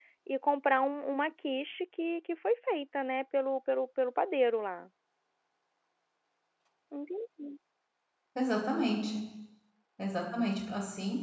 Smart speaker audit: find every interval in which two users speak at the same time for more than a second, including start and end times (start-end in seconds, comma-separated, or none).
none